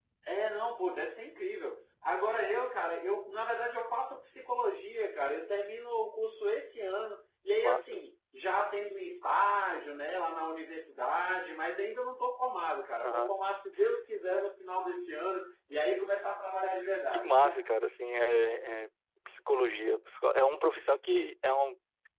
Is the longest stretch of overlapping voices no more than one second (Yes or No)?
Yes